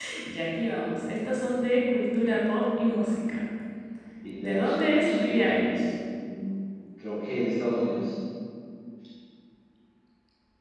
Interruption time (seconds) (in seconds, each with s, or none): 4.3 s